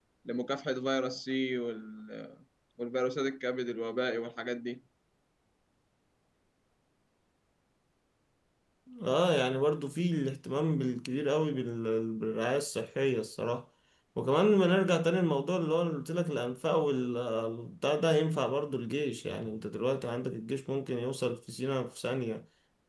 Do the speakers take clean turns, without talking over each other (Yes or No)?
Yes